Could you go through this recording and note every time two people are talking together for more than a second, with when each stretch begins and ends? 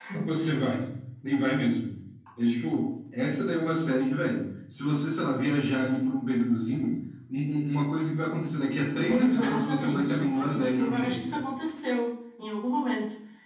9.1-11.3

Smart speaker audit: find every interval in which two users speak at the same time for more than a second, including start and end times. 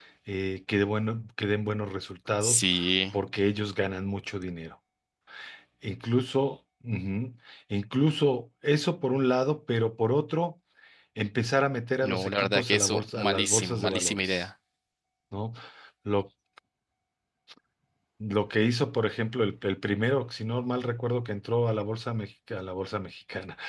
12.0-14.4

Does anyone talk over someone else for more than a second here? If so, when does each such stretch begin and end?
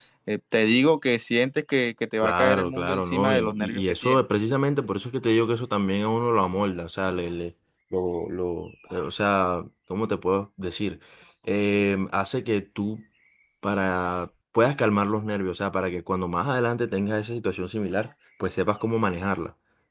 2.2-4.2

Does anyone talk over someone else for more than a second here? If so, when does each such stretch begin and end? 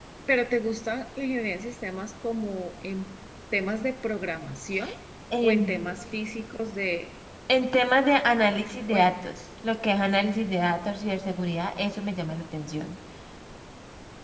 none

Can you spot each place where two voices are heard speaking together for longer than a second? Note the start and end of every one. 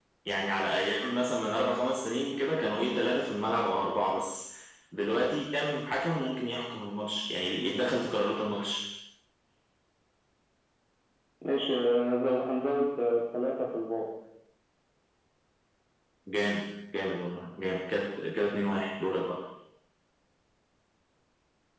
none

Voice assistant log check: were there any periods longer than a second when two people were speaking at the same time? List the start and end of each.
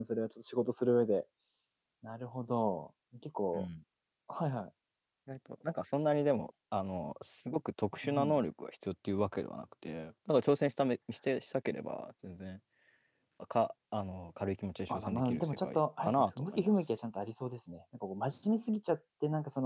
14.9-16.7

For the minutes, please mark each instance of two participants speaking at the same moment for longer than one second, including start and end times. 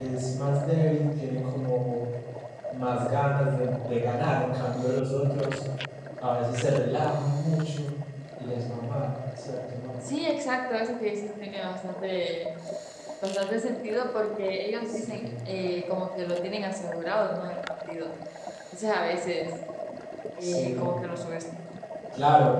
none

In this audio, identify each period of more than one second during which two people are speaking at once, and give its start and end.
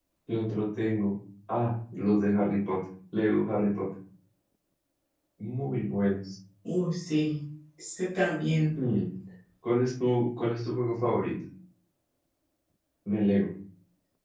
none

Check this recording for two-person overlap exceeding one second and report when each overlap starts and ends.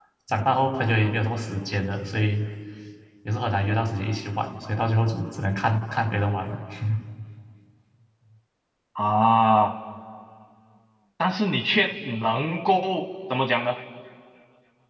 none

